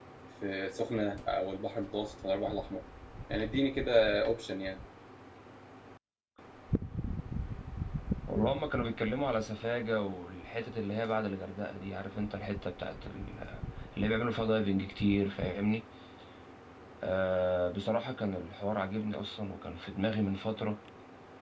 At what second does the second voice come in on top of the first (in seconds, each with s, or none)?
none